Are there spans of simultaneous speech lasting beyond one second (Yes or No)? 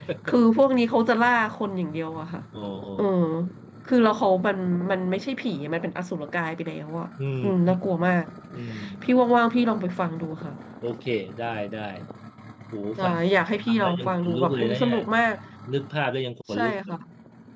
Yes